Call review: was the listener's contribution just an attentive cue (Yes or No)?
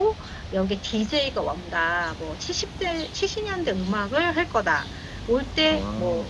Yes